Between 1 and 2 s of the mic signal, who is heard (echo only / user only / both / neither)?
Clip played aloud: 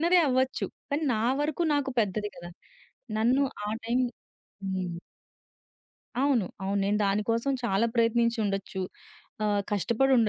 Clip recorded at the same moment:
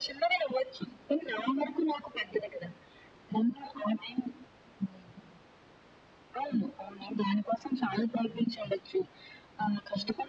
echo only